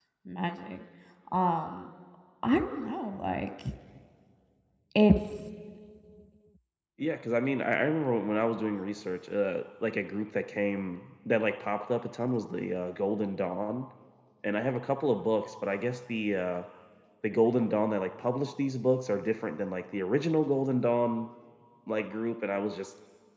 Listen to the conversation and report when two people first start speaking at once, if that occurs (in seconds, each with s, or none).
none